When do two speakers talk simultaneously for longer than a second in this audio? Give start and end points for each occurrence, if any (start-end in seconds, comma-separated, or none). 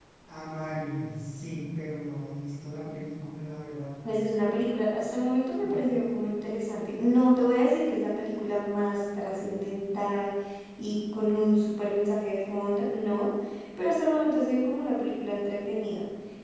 none